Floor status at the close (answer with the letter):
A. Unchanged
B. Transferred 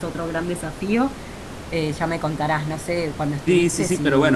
B